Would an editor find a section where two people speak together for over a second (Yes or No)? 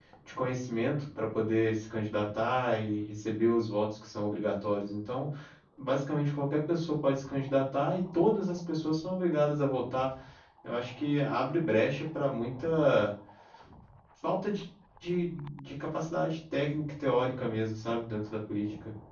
No